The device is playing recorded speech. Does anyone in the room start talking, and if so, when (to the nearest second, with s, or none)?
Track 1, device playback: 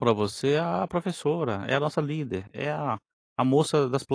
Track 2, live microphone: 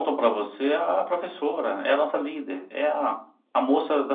none